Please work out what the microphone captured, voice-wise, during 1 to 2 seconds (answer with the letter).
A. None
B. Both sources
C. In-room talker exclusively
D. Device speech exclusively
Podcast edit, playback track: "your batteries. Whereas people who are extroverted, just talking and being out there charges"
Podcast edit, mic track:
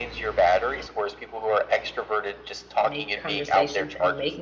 D